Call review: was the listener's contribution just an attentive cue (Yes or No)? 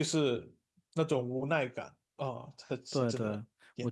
No